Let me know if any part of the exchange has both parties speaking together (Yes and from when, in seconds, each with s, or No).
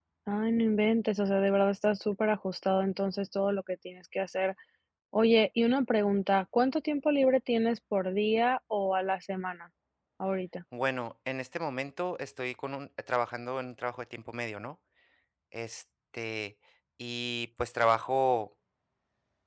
No